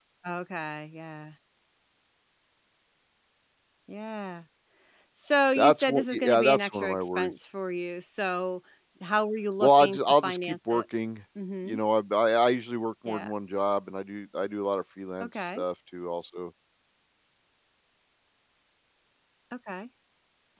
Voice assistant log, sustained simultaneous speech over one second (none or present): present